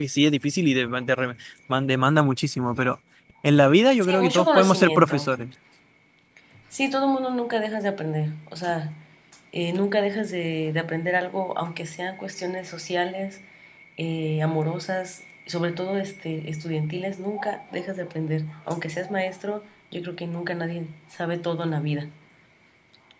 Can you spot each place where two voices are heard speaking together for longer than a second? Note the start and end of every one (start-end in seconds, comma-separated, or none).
4.0-5.3